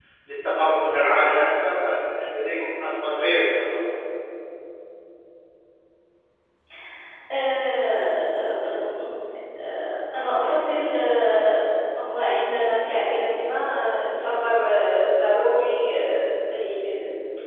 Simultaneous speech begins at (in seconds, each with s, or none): none